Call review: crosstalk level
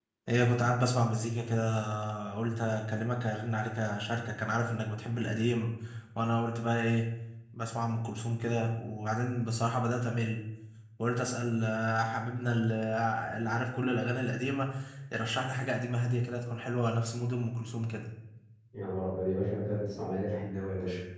none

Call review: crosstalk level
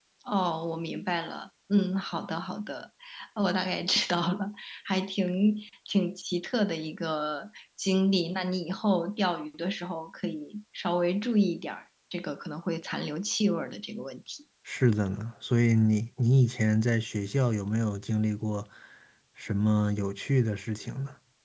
none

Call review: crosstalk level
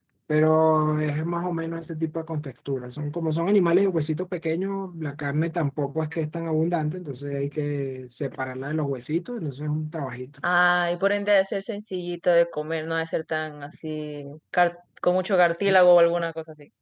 none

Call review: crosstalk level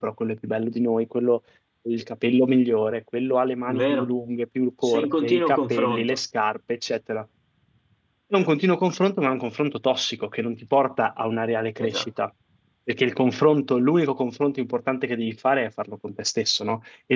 present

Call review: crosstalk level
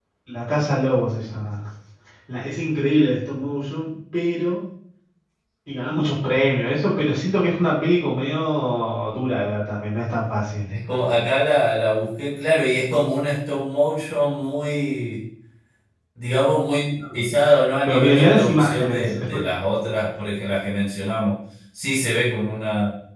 present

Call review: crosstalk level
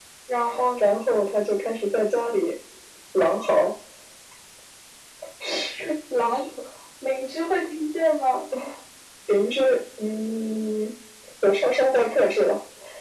none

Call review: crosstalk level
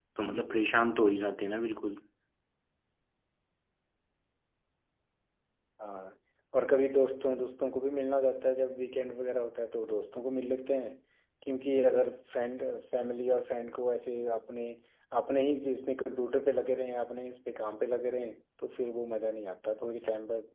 none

